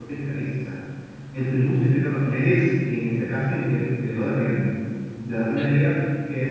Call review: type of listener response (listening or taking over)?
listening